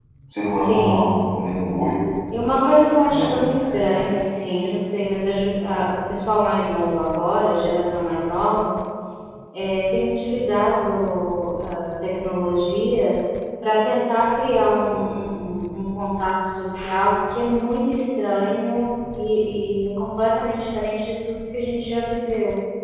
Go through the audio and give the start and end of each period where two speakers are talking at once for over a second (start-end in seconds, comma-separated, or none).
none